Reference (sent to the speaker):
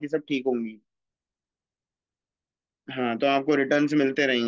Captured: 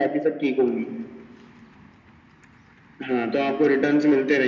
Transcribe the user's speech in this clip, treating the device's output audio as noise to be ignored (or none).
none